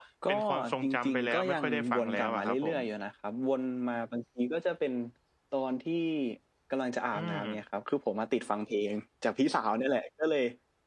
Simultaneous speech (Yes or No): Yes